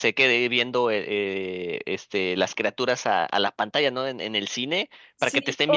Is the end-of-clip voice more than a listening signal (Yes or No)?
No